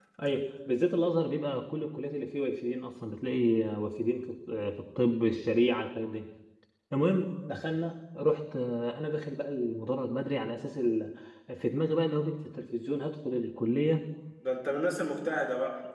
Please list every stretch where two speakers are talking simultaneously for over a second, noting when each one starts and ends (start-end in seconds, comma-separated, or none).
none